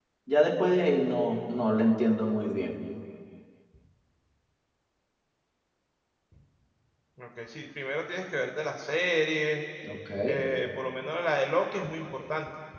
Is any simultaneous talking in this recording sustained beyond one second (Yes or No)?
No